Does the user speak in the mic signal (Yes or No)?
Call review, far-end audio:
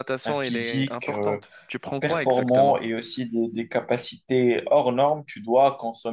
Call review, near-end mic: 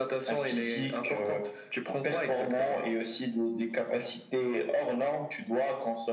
No